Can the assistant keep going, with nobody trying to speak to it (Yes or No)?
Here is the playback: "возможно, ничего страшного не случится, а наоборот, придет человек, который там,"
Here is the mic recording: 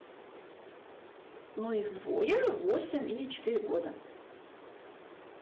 No